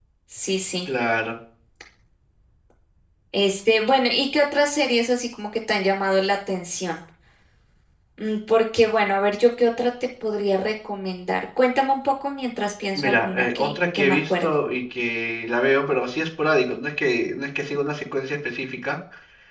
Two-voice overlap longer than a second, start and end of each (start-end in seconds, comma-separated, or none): 12.9-14.5